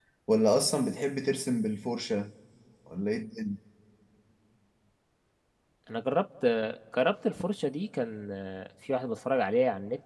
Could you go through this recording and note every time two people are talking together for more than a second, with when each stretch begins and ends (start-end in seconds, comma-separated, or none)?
none